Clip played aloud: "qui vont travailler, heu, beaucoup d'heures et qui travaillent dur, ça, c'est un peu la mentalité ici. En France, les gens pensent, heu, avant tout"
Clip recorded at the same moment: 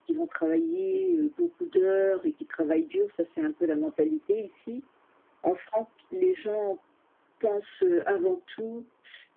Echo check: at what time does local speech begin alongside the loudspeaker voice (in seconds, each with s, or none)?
none